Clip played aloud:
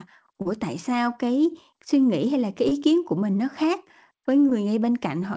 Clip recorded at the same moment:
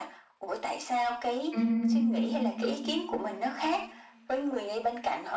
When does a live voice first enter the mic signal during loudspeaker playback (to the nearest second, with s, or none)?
2 s